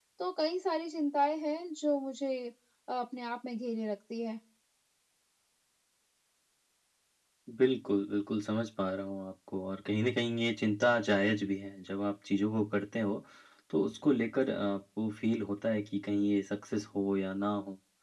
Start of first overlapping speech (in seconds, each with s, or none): none